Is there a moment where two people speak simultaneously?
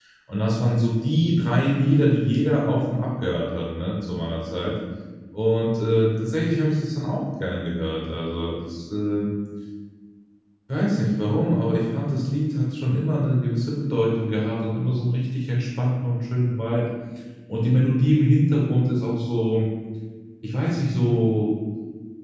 No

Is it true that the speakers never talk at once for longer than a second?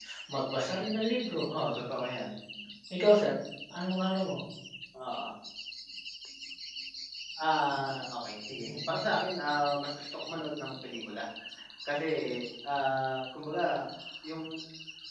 Yes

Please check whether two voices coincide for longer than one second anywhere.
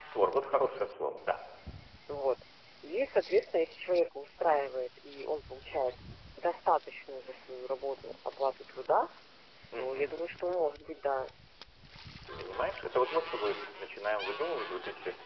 No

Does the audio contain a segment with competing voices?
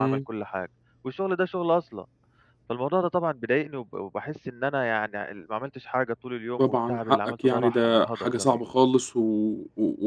Yes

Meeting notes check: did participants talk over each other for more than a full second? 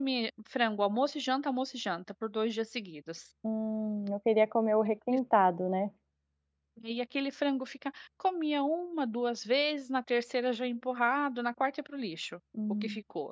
No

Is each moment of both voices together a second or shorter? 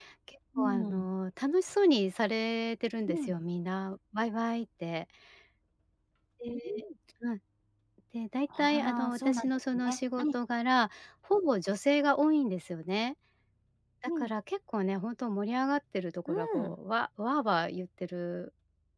No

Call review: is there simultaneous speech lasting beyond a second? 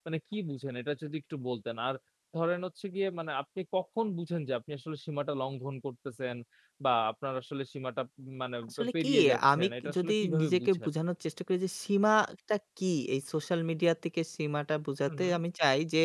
Yes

